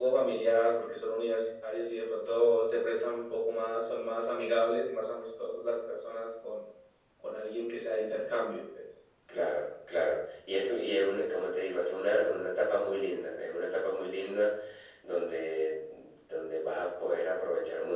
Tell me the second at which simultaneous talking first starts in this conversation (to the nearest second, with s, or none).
none